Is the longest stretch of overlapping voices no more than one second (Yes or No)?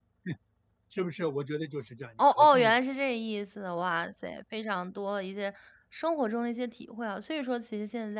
Yes